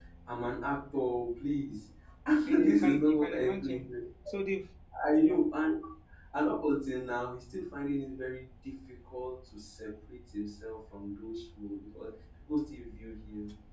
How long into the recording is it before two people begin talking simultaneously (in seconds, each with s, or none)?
2.5 s